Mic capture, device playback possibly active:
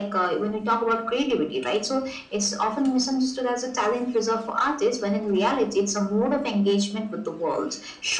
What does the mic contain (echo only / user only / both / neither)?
echo only